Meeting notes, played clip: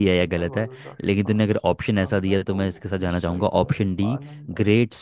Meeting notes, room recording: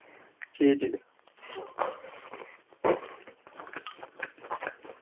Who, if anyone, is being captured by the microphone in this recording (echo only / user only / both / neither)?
user only